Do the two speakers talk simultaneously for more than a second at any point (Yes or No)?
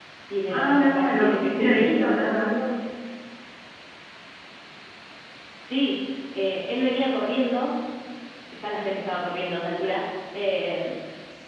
Yes